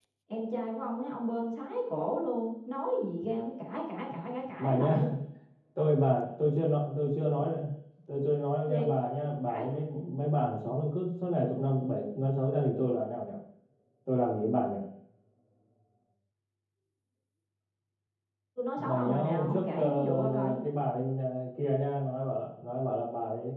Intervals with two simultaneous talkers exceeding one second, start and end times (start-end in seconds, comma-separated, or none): 18.8-20.6